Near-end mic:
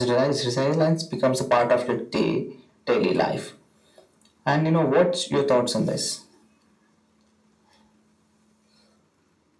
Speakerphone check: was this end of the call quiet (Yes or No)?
Yes